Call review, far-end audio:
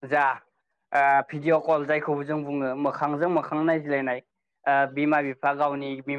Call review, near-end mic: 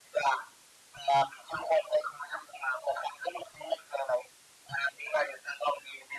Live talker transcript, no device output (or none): none